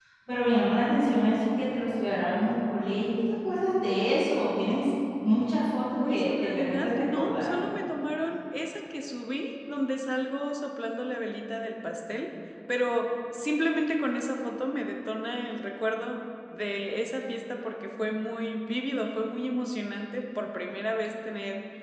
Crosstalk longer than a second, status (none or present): present